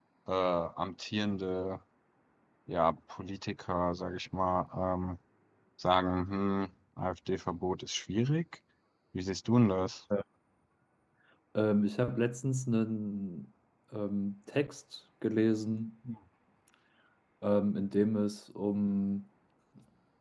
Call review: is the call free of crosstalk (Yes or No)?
Yes